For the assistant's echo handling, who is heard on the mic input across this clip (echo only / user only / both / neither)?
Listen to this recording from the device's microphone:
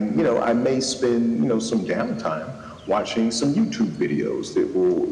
echo only